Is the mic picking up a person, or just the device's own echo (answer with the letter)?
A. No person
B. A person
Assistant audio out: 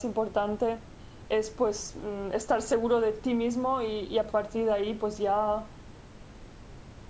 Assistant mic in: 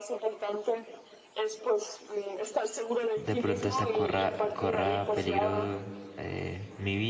B